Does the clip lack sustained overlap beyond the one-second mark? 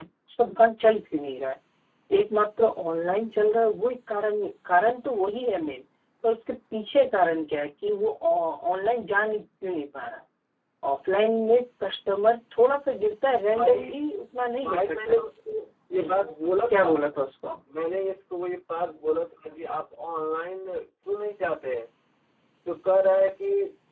Yes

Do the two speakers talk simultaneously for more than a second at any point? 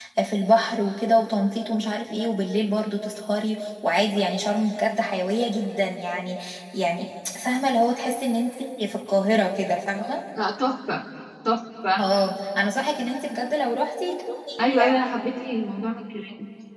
No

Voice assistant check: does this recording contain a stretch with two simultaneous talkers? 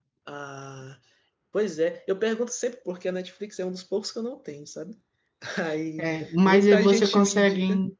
Yes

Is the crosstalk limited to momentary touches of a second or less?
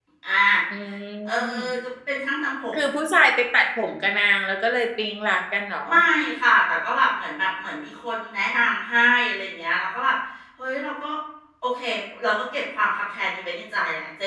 Yes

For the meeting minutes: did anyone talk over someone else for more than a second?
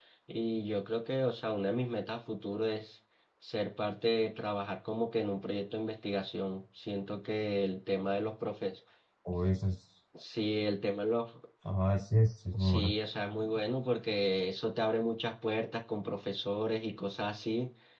No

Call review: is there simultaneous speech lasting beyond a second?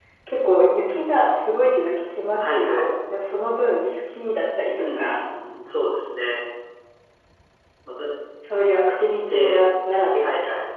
No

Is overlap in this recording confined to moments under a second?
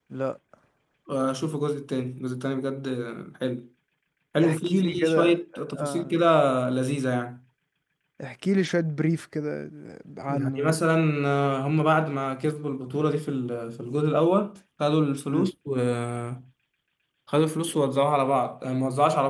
No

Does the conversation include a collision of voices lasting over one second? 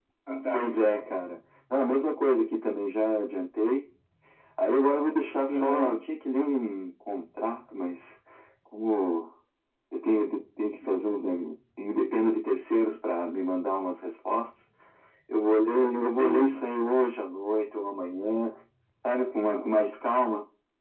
No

